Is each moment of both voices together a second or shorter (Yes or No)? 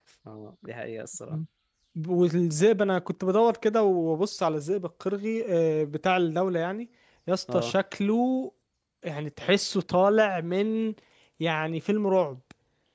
Yes